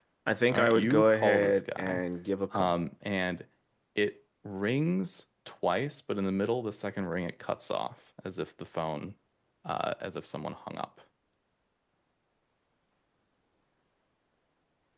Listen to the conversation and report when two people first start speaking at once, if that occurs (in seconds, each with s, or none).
0.5 s